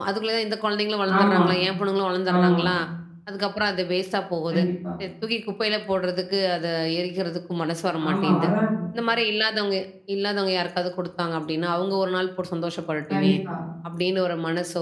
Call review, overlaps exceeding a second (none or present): none